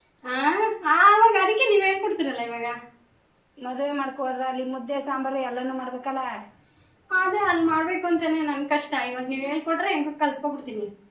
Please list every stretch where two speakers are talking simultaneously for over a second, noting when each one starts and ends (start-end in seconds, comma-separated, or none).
none